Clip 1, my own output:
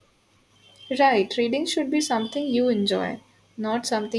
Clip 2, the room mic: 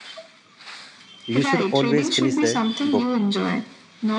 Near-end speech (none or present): present